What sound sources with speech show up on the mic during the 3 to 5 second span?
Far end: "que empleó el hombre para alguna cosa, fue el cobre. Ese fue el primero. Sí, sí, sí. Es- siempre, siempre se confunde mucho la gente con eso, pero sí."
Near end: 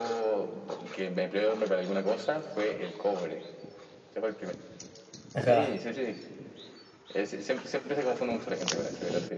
echo only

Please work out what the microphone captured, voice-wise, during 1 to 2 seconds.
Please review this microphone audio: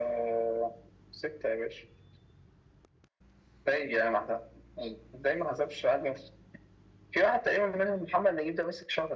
echo only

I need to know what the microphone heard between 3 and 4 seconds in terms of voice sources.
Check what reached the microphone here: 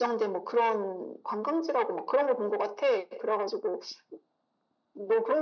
echo only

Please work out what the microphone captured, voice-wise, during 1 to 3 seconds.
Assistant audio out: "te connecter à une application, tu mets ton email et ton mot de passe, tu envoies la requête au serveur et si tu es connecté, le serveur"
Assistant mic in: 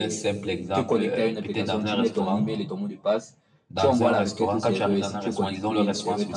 both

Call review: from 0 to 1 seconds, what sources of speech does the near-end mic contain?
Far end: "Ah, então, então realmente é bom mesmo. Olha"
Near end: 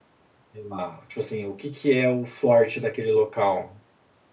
user only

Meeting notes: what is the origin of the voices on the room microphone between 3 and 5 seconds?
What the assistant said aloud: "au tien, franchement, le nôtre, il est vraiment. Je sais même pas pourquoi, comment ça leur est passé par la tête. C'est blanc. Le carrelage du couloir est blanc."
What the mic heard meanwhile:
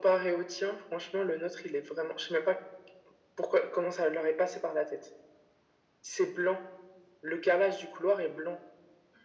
echo only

